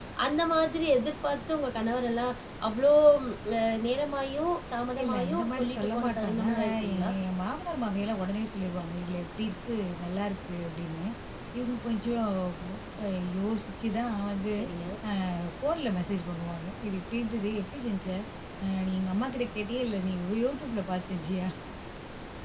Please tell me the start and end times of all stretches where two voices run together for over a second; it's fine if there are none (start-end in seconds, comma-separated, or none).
5.0-7.1